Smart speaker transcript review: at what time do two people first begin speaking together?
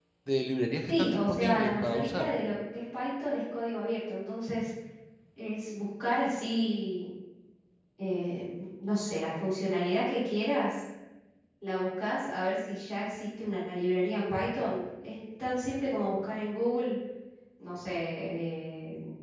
0.9 s

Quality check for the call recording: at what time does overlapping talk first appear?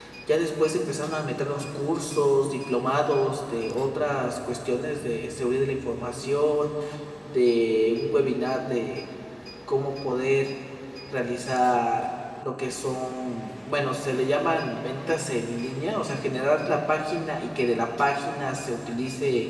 none

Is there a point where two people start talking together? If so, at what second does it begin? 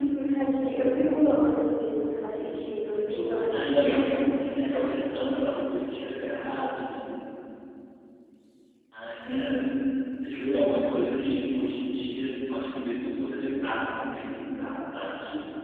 2.9 s

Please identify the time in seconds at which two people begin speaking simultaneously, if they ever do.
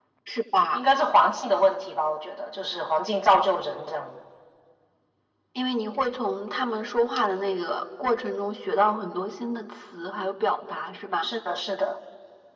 none

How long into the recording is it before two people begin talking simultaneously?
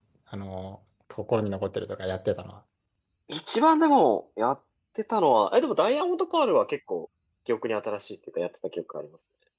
none

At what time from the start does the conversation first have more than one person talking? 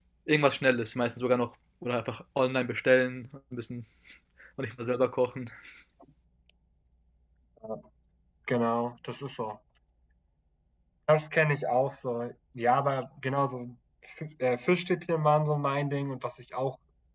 none

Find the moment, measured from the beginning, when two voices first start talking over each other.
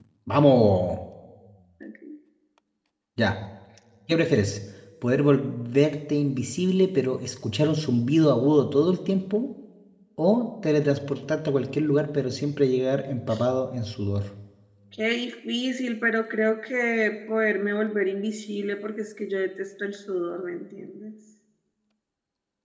none

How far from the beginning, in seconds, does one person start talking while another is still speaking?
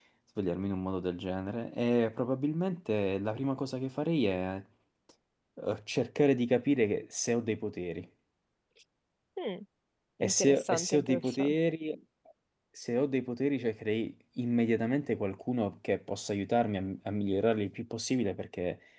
10.2 s

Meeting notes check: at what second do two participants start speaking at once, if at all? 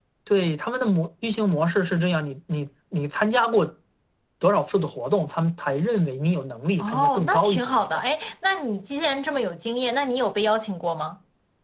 6.8 s

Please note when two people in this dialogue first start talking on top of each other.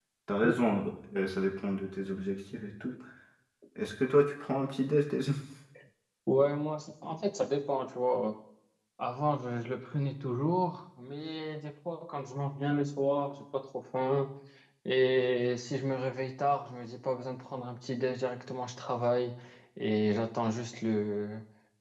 none

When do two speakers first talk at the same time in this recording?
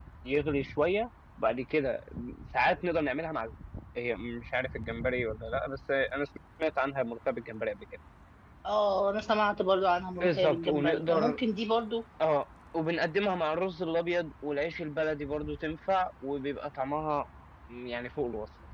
10.2 s

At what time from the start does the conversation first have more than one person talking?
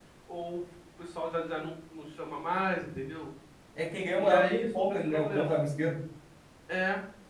4.1 s

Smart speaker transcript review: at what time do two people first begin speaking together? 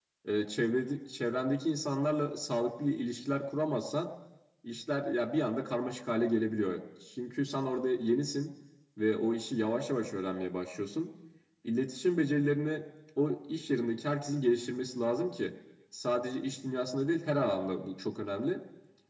none

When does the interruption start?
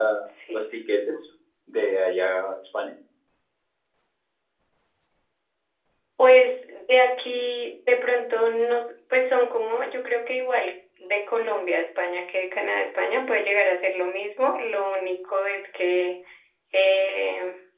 none

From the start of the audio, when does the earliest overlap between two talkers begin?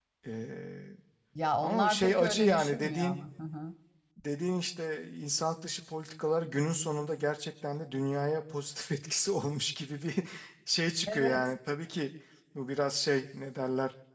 1.6 s

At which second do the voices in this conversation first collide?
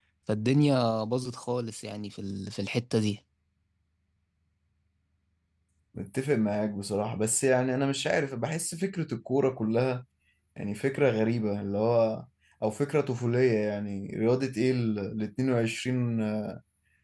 none

